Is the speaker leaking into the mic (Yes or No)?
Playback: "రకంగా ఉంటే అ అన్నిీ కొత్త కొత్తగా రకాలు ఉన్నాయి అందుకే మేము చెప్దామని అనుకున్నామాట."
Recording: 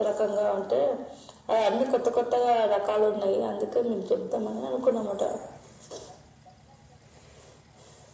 Yes